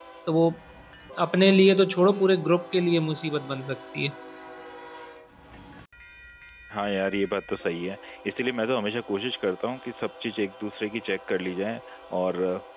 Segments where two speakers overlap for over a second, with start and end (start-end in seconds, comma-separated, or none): none